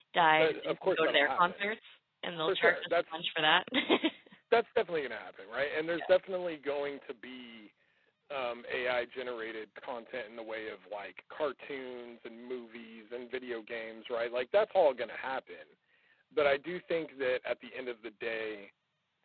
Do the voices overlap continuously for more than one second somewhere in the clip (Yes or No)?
Yes